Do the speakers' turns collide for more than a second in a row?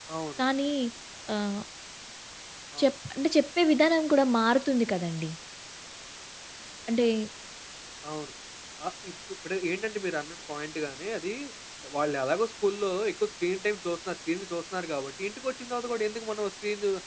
No

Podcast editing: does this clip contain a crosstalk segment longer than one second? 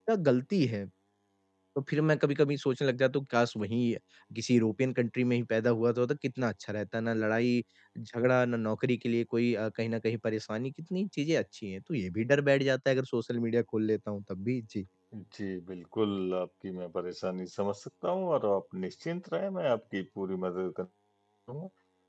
No

